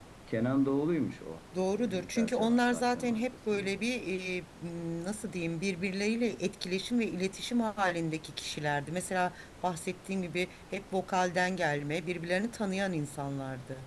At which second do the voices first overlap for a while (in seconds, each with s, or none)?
1.5 s